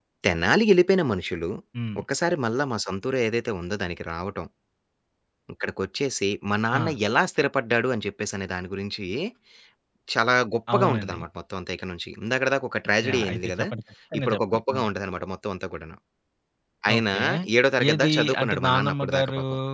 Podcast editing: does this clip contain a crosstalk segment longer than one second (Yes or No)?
Yes